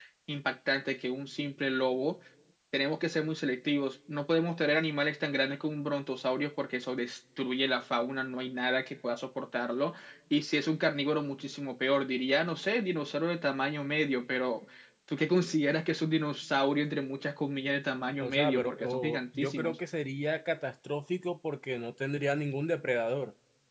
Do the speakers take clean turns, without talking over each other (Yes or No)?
No